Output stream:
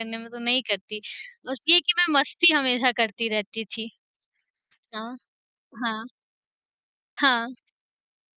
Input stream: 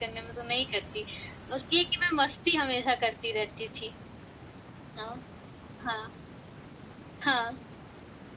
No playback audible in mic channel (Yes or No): No